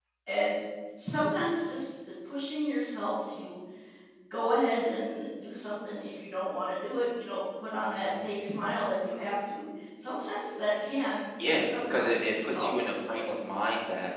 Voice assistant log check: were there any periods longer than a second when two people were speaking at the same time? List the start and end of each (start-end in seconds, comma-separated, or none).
11.6-13.3